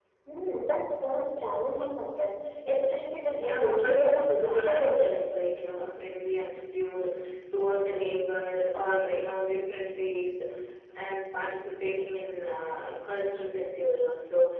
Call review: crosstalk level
present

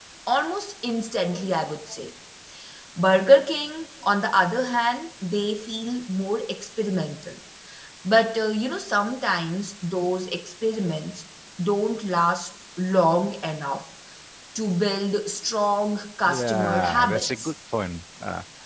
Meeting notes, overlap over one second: present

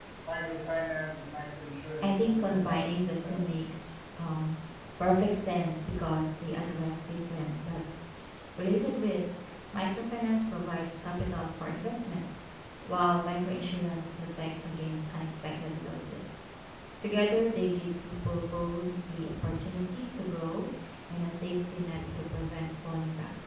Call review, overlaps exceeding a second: present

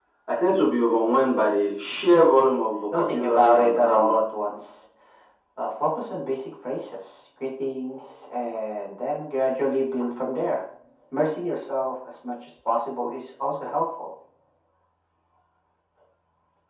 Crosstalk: present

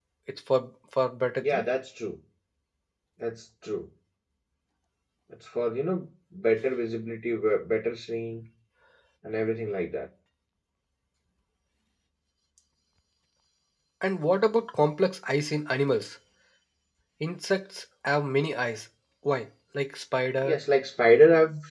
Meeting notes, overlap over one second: none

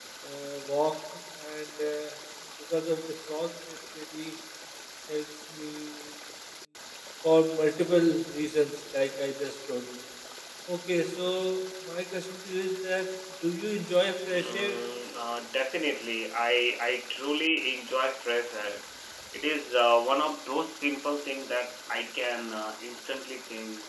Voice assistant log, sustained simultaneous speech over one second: none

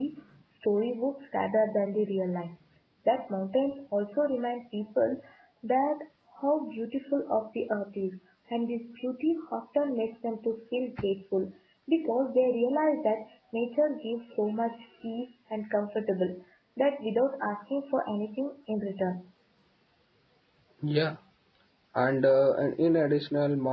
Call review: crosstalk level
none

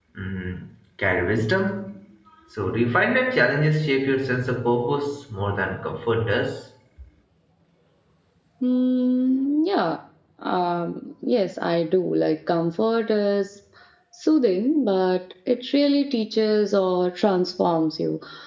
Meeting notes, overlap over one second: none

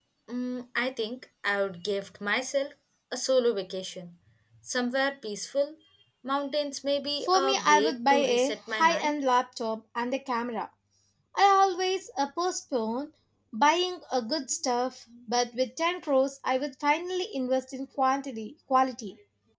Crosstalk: present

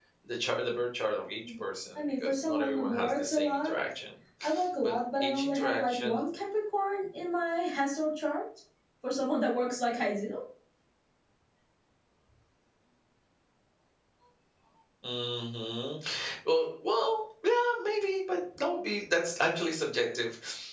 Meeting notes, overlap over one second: present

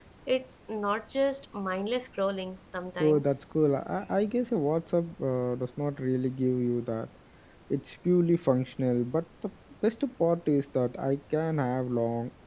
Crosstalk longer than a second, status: none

